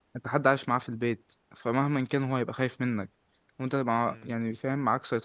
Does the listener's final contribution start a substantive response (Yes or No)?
No